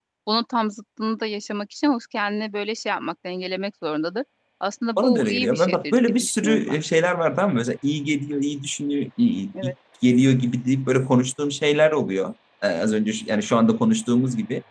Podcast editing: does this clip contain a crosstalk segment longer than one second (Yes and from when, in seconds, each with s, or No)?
Yes, from 5.0 s